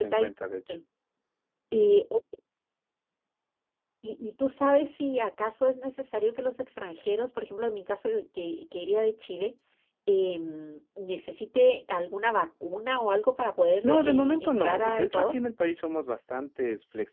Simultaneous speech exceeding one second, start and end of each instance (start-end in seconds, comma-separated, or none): 13.8-15.4